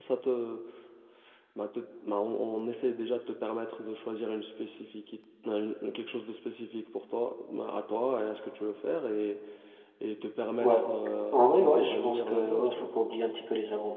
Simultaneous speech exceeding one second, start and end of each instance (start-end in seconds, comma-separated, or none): 11.3-12.9